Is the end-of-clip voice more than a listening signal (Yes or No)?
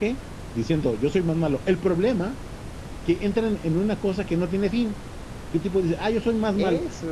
No